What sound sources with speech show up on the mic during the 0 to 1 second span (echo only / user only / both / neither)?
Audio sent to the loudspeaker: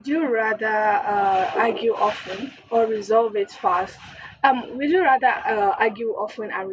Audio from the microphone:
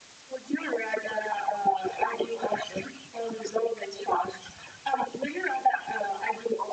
echo only